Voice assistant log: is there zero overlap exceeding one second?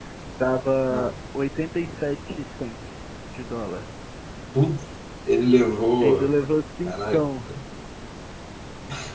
Yes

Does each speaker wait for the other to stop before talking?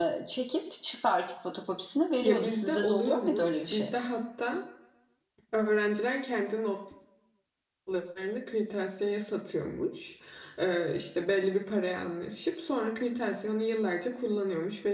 No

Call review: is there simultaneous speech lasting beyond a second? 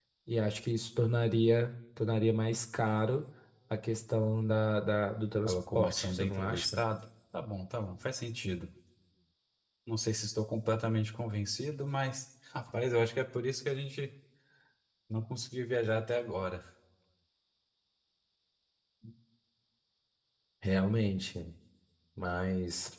Yes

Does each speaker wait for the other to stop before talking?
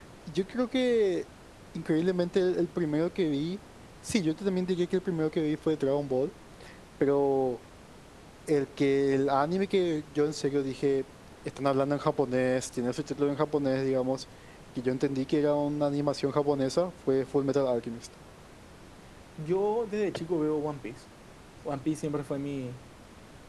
Yes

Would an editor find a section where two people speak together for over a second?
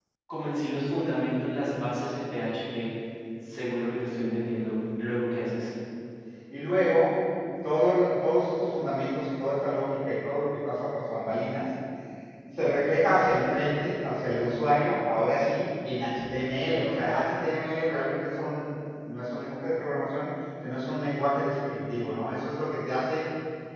No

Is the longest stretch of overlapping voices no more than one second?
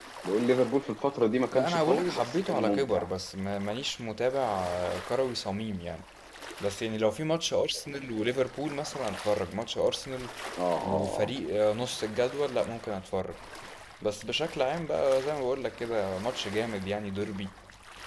No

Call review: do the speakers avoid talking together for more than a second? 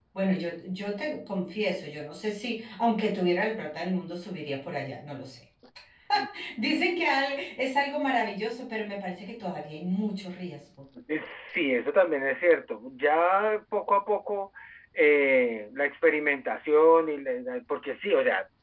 Yes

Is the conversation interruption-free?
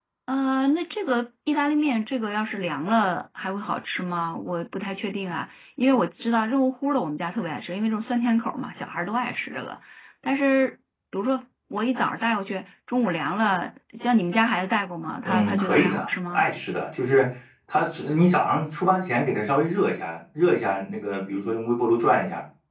No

